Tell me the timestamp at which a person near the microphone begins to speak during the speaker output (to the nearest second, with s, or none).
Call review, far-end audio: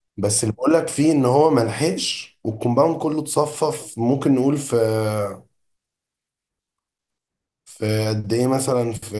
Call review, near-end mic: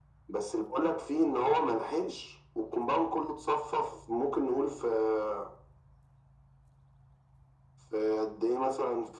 none